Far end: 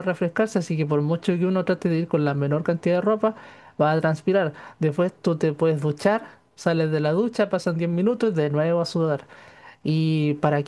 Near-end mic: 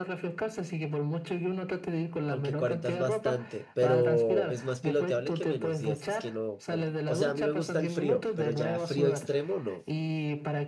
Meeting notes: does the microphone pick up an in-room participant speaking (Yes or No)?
Yes